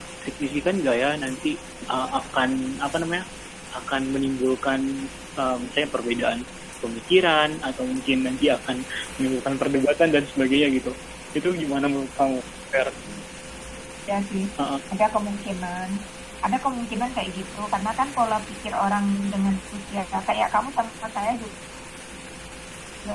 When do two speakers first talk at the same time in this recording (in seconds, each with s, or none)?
none